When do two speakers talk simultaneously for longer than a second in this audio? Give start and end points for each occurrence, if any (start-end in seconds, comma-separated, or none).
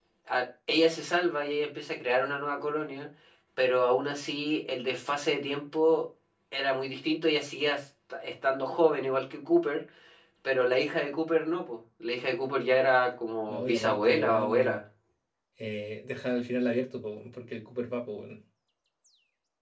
13.5-14.8